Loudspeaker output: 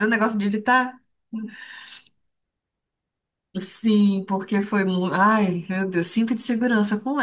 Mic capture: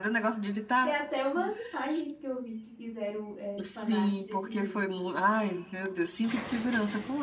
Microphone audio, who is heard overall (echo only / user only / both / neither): both